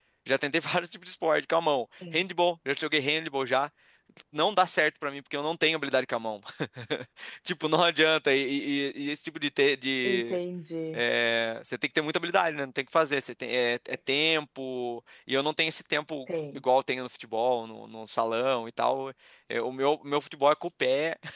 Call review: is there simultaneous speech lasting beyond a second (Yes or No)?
No